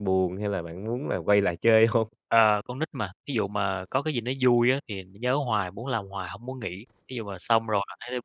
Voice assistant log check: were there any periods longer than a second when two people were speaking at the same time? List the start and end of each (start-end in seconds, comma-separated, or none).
none